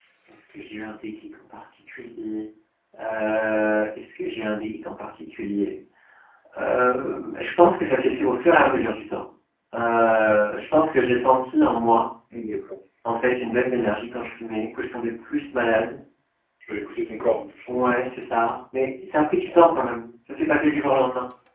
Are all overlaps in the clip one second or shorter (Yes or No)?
Yes